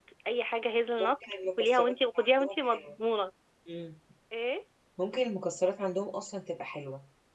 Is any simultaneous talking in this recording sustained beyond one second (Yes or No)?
Yes